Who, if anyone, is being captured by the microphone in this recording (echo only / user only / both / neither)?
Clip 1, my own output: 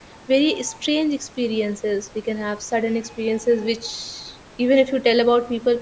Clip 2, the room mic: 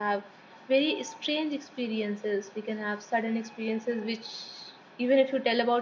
echo only